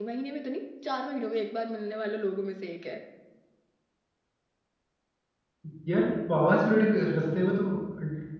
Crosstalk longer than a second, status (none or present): none